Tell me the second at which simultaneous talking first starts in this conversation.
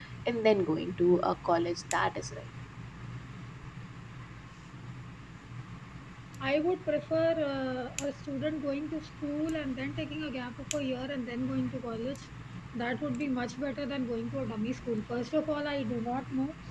none

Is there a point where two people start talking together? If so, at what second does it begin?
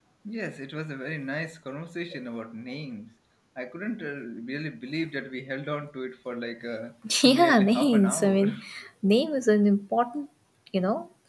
7.0 s

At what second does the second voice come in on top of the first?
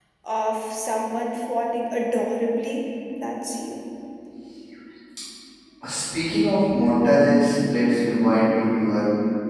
none

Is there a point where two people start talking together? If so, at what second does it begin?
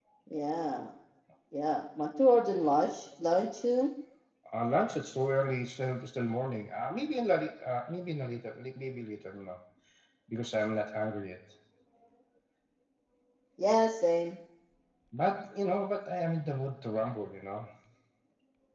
none

